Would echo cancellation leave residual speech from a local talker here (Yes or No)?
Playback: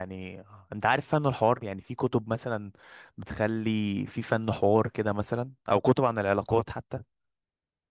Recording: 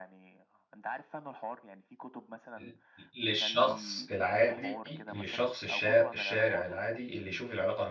Yes